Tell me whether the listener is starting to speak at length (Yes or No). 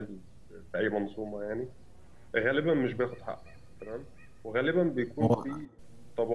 No